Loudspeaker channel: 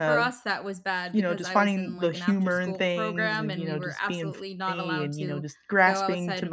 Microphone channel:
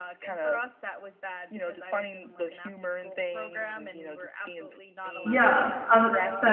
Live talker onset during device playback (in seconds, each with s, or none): 5.2 s